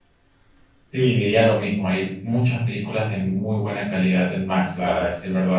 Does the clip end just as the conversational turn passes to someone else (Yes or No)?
No